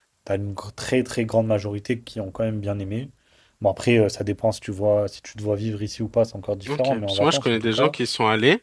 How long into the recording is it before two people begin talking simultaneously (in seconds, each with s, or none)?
6.7 s